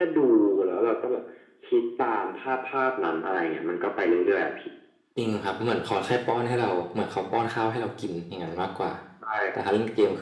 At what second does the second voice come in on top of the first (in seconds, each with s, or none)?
none